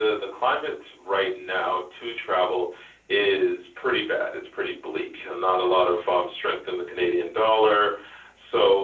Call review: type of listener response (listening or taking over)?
listening